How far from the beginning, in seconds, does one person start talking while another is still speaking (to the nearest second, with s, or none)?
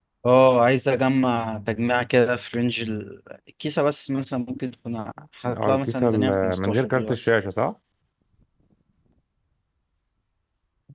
5 s